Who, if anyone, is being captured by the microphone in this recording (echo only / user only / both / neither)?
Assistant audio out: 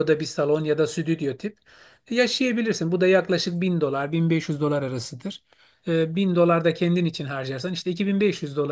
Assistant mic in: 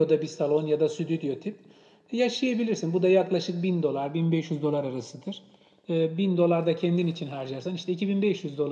echo only